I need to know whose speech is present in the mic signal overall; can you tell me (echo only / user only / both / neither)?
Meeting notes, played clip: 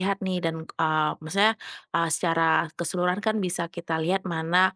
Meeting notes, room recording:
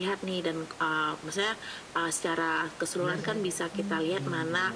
both